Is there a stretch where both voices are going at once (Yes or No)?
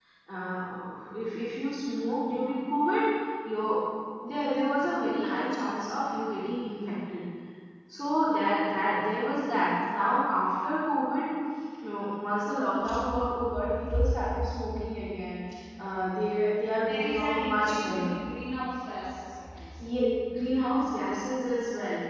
Yes